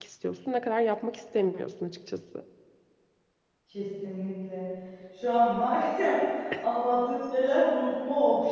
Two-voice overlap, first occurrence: none

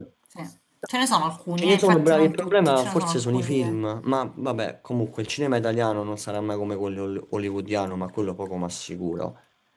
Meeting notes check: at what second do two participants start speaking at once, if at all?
1.6 s

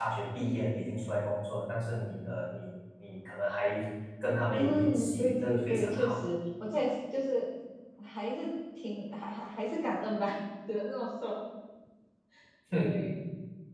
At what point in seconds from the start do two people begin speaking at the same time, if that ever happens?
4.5 s

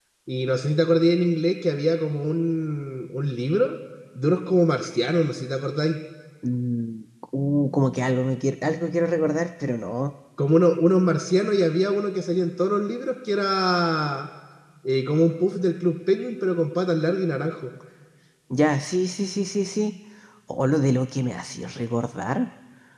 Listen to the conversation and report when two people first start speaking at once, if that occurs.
none

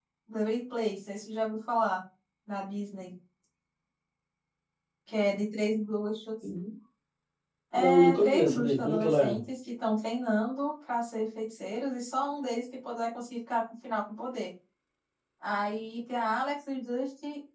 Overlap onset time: 7.8 s

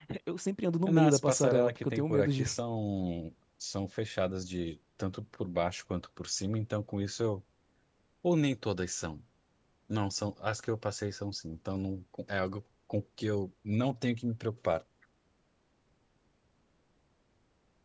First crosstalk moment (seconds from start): 0.8 s

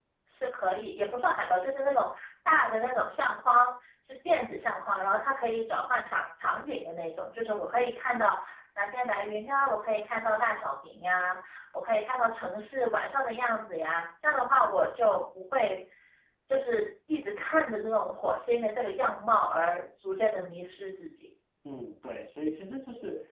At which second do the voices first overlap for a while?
none

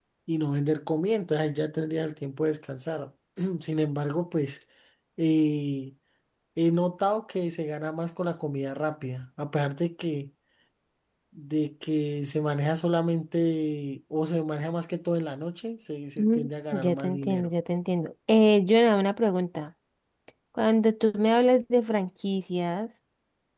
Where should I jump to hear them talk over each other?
16.2 s

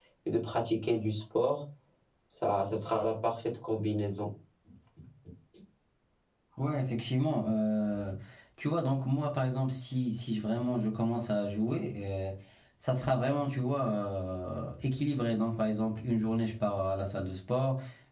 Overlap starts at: none

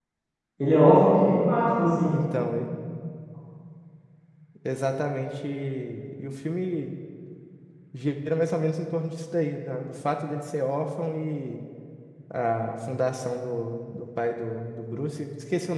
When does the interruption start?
none

